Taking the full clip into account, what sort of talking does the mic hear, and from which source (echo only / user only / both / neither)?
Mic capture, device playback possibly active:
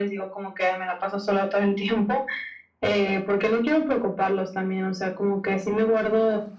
echo only